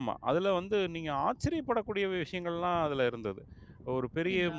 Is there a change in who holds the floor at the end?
No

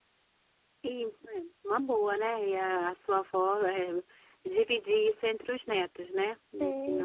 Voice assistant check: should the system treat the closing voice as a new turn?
Yes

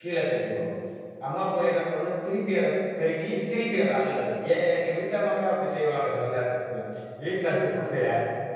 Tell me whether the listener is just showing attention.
Yes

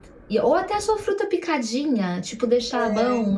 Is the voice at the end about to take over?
No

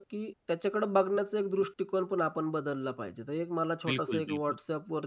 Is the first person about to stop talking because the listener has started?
No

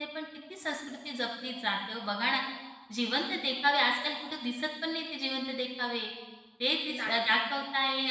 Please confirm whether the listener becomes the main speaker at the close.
No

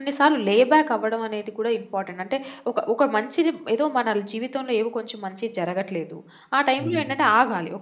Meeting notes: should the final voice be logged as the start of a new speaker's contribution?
No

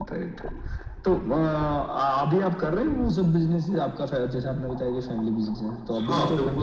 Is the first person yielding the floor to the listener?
Yes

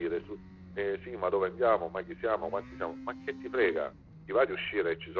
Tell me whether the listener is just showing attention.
Yes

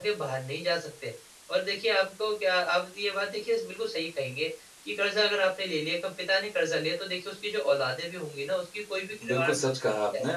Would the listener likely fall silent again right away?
No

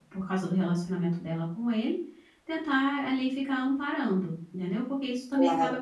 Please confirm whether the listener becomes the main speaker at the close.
Yes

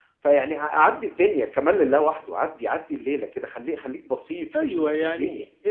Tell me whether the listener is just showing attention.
No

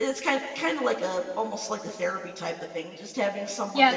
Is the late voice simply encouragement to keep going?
No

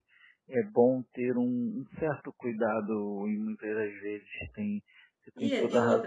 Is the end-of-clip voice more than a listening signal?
Yes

